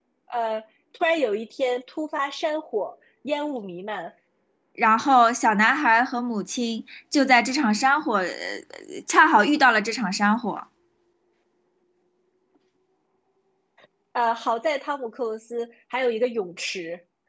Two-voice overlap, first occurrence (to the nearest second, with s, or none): none